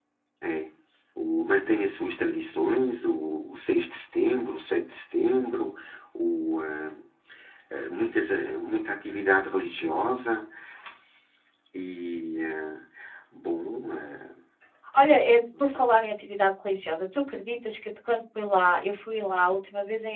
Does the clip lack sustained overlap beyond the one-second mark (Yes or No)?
Yes